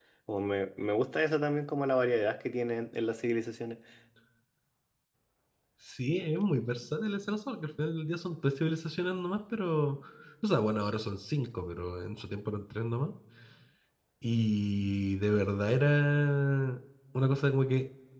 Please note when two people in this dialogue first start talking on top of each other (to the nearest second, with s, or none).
none